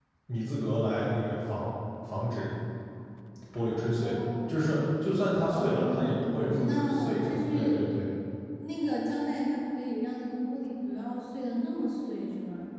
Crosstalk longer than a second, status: present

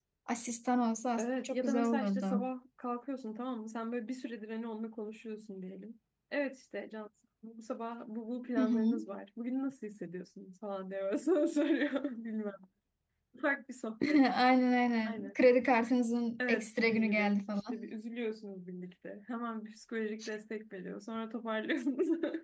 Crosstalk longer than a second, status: present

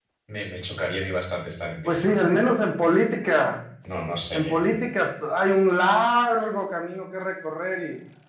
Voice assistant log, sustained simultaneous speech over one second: none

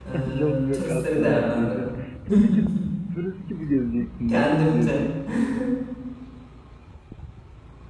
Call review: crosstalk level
present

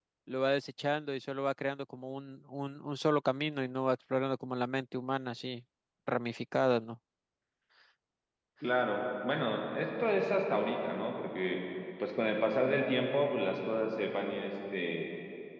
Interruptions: none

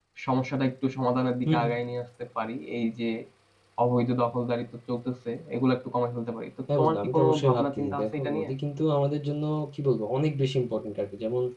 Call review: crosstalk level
present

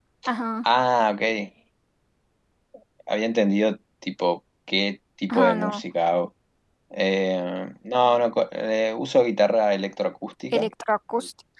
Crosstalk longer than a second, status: none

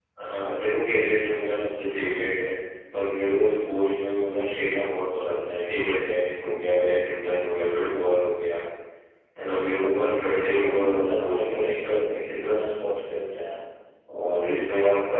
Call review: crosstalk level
present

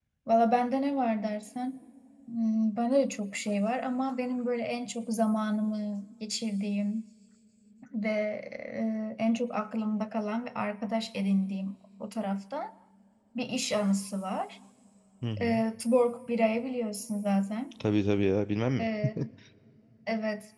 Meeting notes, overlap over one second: none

